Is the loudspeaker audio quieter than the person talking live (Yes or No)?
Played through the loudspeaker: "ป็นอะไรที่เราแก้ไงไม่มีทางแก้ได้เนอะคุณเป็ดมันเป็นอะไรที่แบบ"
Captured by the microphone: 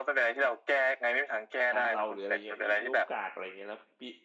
No